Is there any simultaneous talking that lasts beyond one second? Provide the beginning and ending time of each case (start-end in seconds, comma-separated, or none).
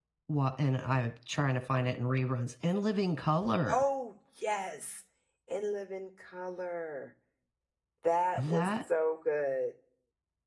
none